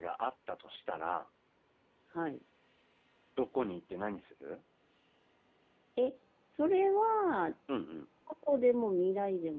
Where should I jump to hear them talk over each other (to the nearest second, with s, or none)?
none